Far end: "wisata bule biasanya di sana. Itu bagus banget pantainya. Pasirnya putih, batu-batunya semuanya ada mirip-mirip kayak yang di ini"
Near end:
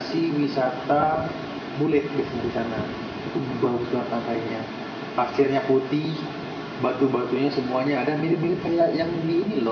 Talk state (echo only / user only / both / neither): echo only